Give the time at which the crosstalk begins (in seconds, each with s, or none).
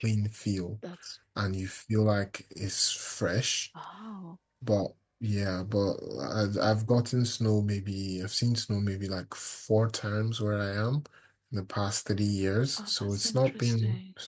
12.8 s